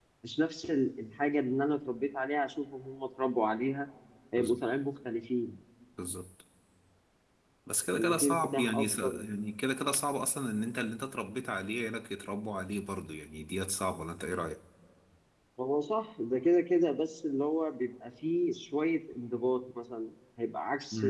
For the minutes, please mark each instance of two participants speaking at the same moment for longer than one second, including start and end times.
7.9-9.1

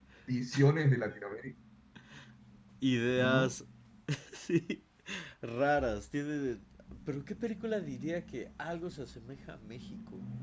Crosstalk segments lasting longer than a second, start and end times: none

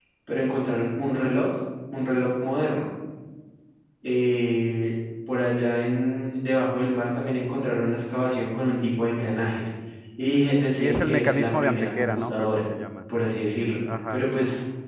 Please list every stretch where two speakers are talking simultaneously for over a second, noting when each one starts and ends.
10.8-12.6

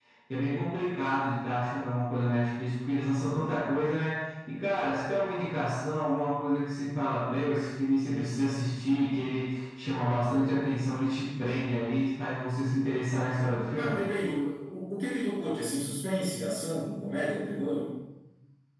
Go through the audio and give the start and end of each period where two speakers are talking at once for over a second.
none

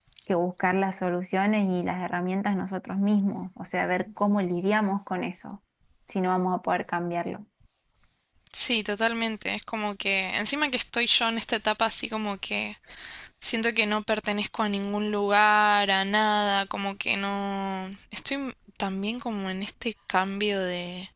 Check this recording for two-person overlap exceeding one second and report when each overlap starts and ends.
none

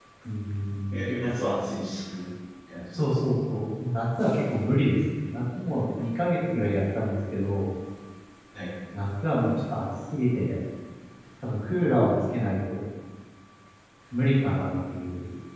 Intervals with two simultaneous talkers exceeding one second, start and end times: none

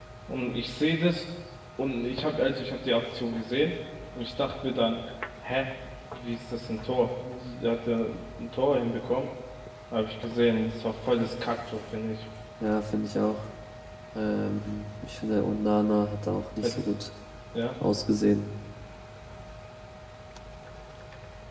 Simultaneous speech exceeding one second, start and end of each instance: none

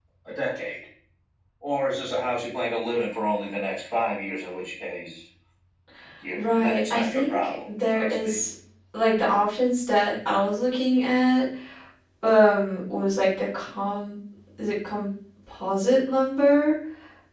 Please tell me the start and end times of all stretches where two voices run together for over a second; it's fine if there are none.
6.3-8.4

